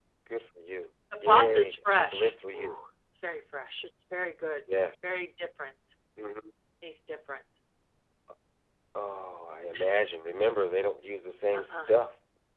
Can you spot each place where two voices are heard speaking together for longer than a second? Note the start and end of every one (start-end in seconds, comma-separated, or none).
1.2-2.7